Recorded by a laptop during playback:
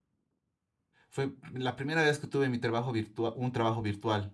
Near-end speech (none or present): present